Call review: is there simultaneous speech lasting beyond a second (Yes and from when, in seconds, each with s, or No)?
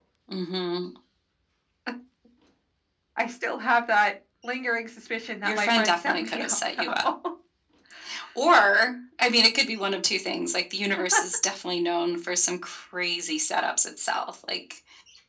Yes, from 5.5 s